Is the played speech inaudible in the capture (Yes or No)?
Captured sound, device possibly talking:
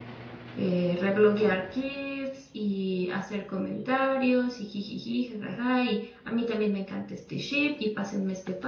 Yes